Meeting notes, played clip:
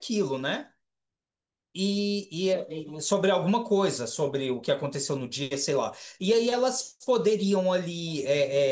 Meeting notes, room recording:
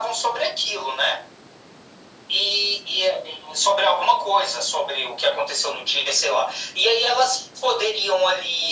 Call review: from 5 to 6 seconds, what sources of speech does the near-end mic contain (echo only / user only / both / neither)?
echo only